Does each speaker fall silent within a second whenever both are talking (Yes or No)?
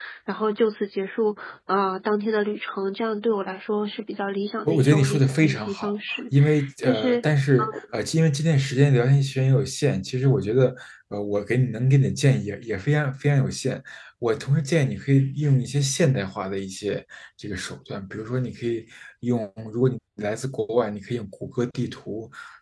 No